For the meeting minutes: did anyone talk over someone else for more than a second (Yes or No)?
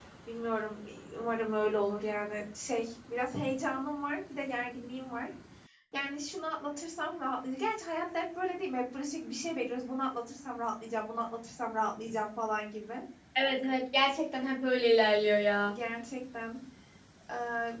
No